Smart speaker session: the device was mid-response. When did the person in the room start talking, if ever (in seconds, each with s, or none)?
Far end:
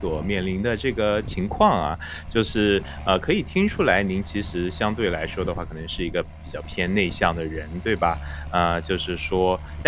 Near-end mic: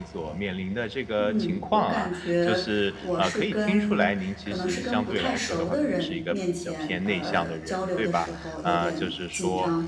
1.2 s